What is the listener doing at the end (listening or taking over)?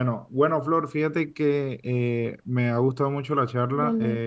listening